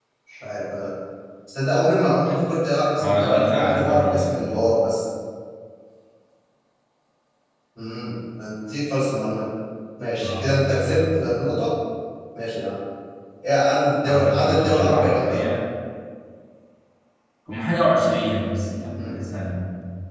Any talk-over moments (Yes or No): Yes